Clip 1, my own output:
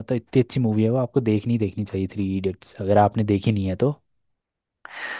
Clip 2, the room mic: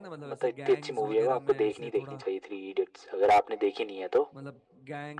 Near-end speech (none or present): present